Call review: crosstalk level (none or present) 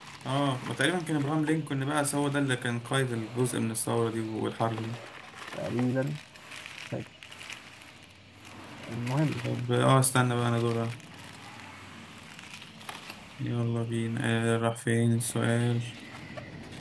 none